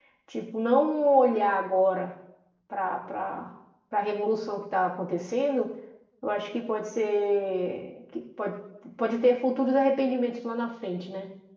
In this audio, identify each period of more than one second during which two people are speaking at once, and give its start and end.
none

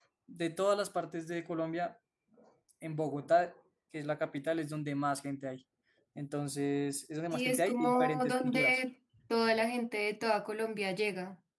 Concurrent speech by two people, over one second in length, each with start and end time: 7.3-8.8

